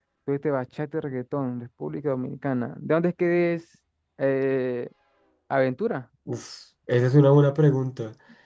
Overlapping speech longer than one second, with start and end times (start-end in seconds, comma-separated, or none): none